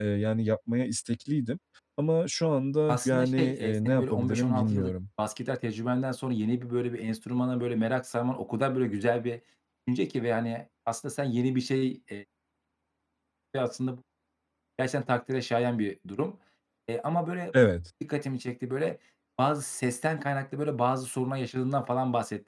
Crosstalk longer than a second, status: present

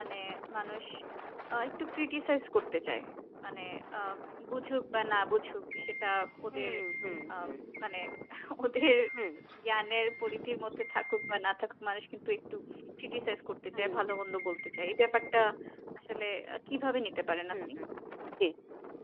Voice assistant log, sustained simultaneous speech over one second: none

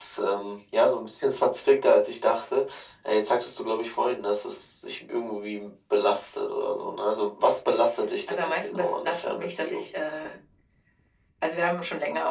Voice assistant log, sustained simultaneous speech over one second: present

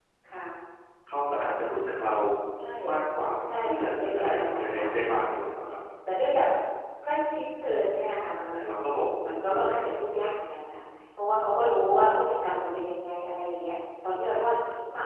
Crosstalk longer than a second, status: present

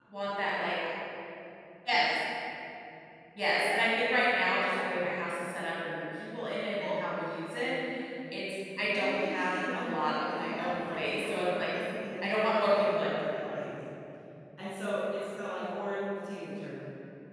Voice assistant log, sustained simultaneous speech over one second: present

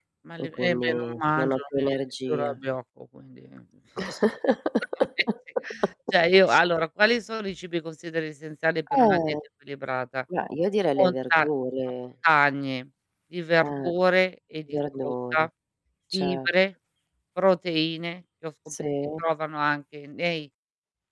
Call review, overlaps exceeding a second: present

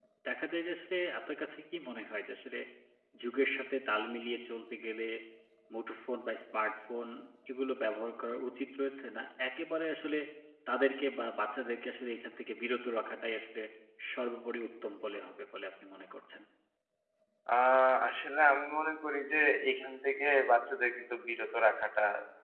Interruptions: none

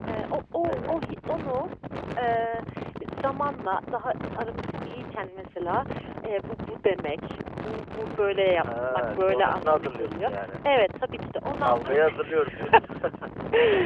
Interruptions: present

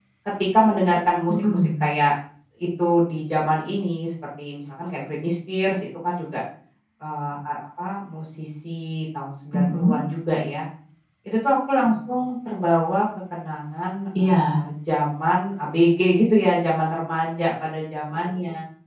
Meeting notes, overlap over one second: none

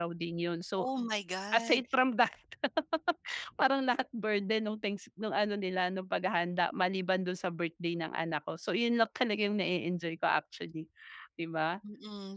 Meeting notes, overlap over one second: none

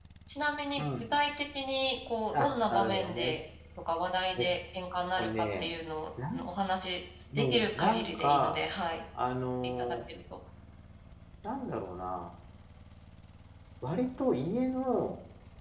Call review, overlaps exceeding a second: present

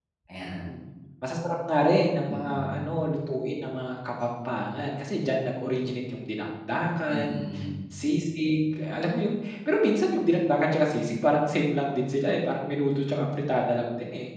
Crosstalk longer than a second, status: none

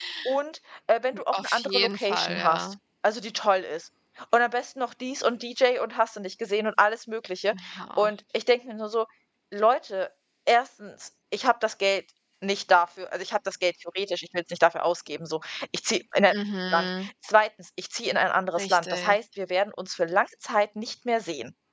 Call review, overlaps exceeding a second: present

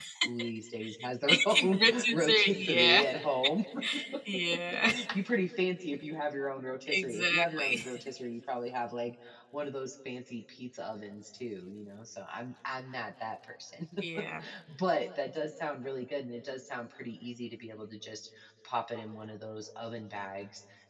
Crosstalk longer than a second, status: present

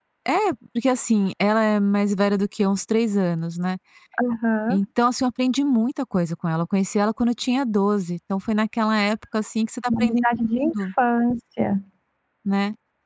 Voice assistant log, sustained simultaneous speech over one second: none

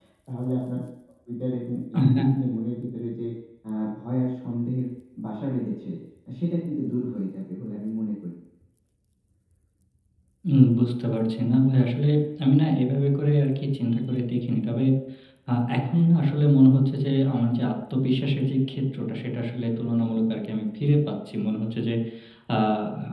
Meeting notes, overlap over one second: none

